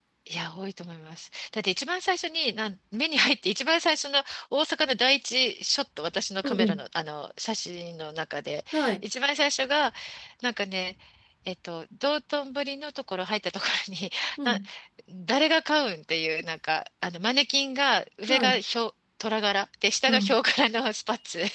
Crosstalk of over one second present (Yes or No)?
No